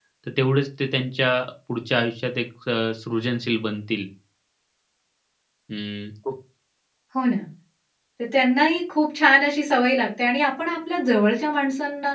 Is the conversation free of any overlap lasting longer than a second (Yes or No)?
Yes